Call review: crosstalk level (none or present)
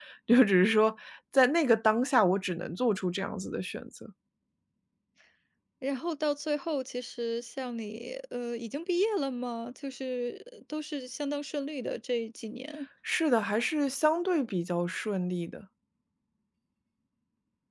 none